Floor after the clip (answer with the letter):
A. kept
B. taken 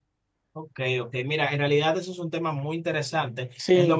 A